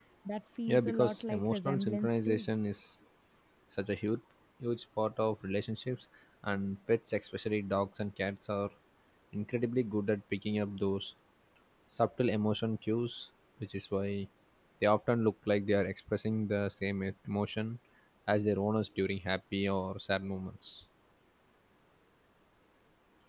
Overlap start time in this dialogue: 0.7 s

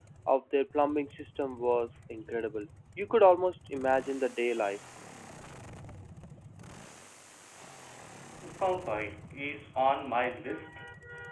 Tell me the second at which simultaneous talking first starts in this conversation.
none

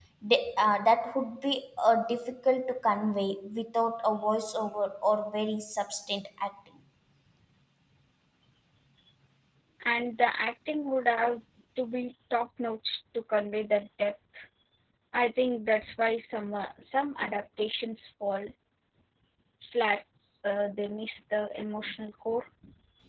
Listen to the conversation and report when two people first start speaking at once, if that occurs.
none

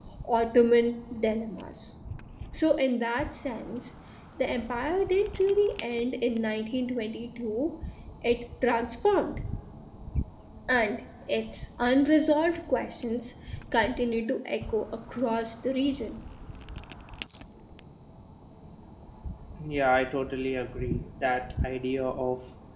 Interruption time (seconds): none

